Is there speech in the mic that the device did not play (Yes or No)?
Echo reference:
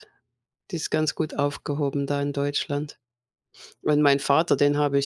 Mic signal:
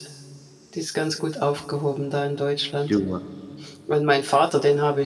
Yes